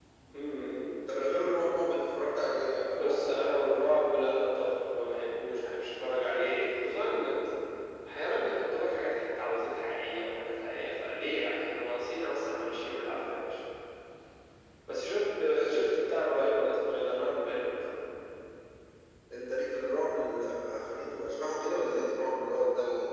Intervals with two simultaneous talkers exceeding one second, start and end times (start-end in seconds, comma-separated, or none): none